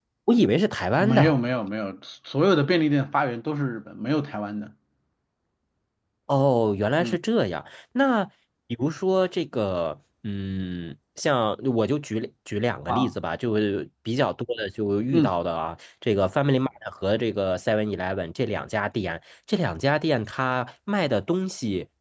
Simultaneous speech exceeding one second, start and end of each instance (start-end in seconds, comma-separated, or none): none